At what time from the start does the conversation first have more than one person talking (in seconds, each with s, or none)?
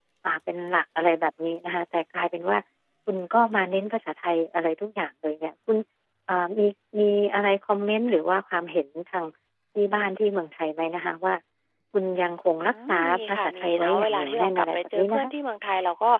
12.7 s